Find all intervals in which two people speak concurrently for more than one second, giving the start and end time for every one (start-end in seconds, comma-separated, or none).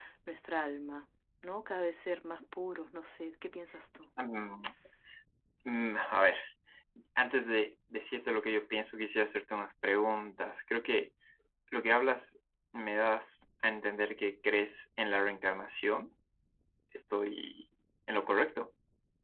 none